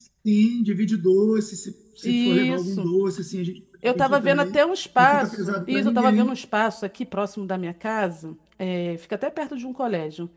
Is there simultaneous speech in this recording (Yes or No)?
Yes